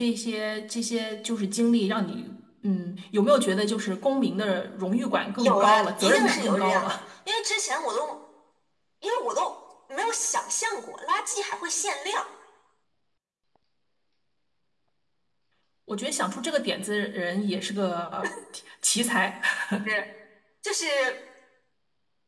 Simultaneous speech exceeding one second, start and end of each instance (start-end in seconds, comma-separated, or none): 5.4-7.0